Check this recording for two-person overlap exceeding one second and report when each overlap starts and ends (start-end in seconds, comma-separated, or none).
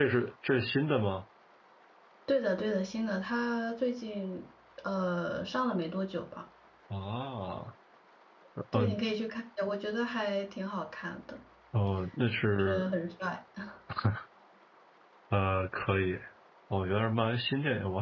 none